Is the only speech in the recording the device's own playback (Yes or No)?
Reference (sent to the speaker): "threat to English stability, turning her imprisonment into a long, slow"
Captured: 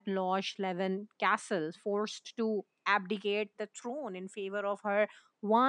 No